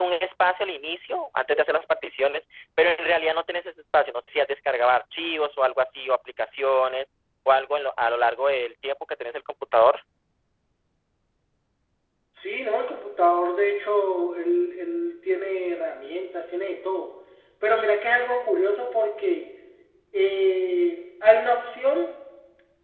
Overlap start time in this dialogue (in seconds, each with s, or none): none